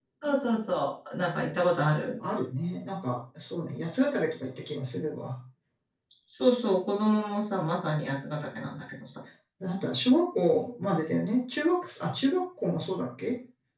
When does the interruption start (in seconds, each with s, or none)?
none